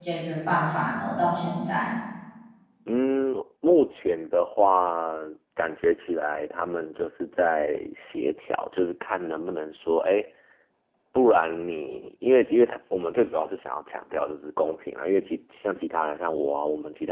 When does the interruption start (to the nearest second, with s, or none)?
none